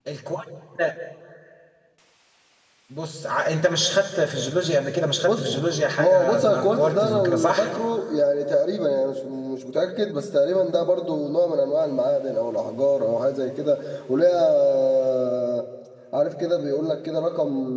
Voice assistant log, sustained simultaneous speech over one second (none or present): present